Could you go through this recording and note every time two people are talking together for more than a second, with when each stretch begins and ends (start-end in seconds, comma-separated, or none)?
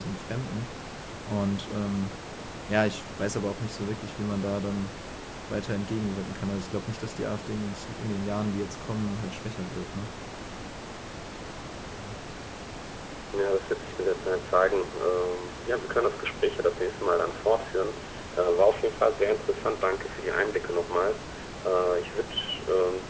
none